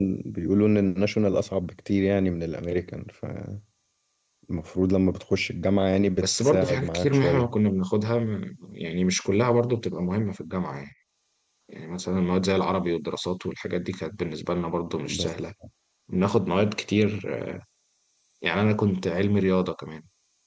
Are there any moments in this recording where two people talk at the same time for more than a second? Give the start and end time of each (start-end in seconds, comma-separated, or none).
6.2-7.5